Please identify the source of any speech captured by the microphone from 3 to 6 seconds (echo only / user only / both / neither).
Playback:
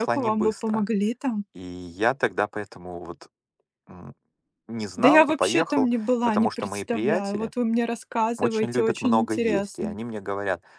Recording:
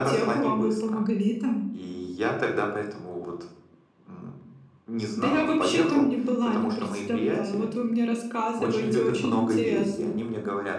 echo only